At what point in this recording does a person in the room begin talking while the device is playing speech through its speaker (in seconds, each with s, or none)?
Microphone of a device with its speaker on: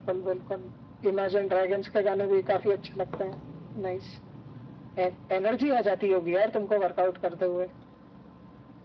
none